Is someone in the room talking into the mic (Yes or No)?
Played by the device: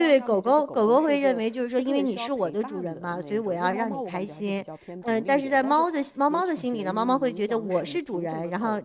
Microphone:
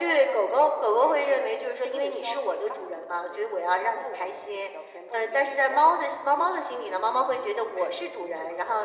No